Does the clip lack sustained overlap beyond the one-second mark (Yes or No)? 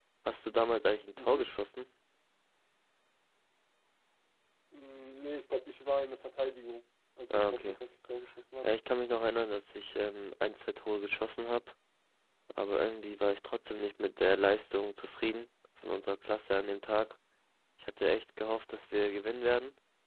Yes